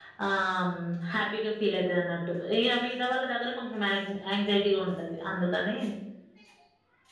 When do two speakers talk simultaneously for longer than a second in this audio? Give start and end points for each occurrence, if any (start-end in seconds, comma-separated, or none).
none